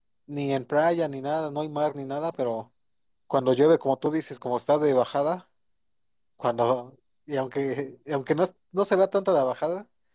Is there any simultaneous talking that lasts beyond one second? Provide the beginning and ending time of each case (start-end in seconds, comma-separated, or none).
none